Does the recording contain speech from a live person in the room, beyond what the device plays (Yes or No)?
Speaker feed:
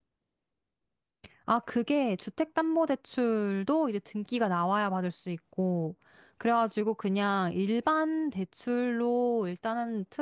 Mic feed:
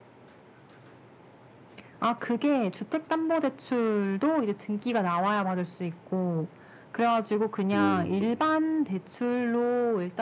Yes